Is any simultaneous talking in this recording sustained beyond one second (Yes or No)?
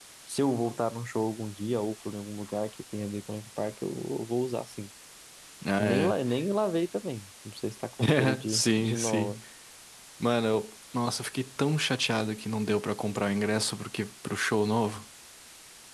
Yes